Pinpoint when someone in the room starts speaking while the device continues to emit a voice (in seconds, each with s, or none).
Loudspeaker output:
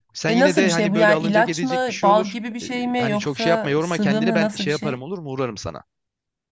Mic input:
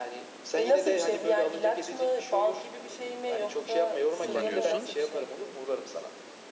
4.2 s